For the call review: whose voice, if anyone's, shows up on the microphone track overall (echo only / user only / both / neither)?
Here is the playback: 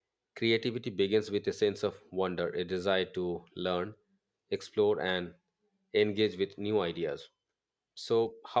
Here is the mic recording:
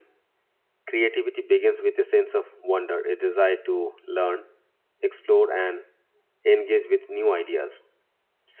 echo only